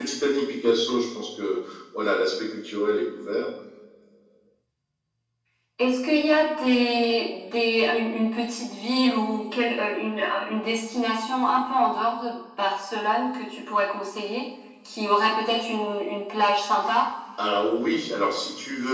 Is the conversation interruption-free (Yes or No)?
Yes